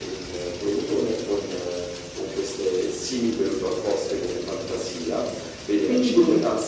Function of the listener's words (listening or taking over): listening